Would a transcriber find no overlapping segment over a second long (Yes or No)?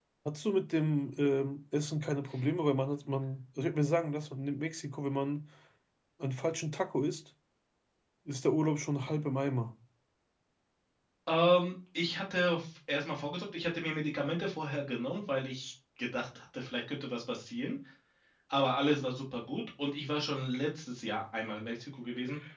Yes